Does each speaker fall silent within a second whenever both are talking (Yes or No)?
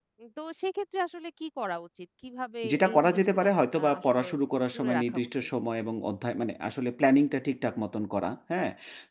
No